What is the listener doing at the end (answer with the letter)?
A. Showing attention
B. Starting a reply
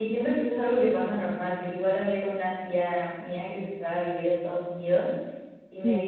A